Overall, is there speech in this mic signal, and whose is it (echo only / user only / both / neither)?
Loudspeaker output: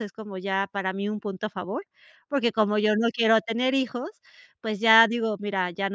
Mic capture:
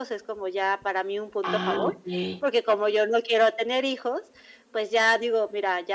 both